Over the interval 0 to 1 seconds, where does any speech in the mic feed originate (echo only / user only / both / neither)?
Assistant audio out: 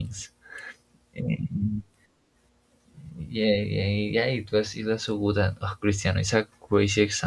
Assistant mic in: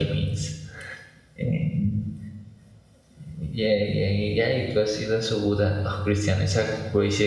echo only